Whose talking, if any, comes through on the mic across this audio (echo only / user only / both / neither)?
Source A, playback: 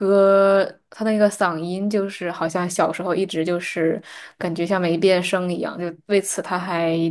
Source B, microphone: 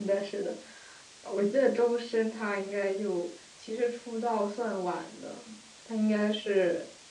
user only